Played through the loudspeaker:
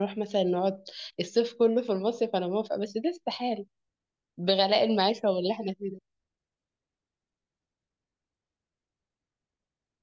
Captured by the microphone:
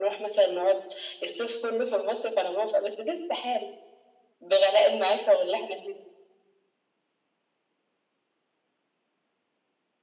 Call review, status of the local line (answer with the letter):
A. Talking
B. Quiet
B